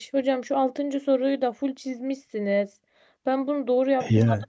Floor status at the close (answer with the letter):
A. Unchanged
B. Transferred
A